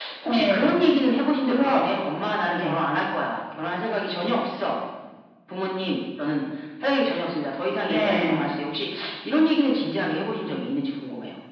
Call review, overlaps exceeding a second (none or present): none